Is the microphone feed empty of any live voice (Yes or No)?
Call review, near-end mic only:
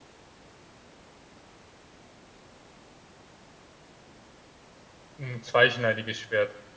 No